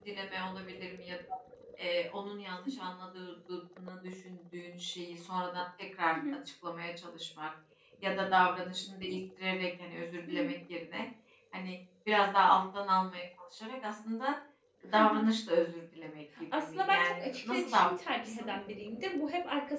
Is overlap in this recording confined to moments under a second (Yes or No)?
No